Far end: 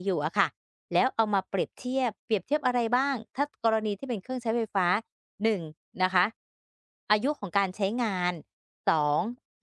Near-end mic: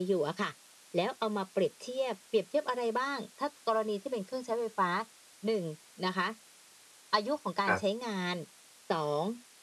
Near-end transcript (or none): ครับ